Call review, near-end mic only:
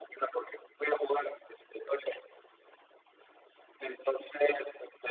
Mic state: echo only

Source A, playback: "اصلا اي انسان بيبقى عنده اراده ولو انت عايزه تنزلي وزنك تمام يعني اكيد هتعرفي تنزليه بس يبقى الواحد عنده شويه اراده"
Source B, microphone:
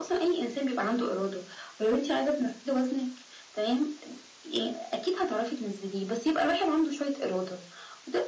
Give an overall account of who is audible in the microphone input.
echo only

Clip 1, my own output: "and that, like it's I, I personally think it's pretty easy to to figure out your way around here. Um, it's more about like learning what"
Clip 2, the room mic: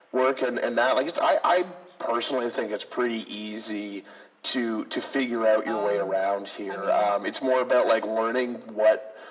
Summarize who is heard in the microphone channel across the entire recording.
both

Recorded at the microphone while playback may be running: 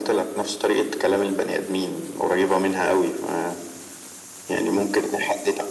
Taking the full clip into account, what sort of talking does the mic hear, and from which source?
echo only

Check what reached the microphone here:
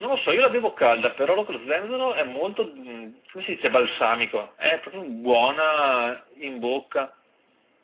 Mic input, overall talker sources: echo only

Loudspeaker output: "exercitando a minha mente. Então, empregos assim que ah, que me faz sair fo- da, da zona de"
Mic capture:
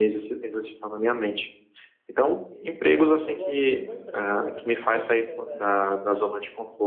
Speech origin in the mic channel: both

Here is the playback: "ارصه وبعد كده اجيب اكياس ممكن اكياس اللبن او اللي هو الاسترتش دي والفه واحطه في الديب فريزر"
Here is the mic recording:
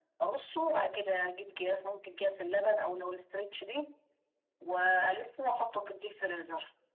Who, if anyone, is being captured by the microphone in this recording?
echo only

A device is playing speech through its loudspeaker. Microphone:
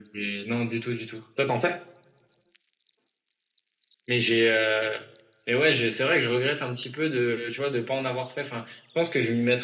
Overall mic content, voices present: echo only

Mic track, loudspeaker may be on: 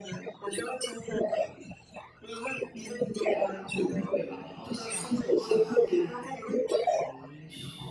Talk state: both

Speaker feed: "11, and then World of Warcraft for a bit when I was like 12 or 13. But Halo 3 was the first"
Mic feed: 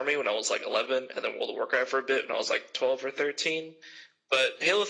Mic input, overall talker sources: echo only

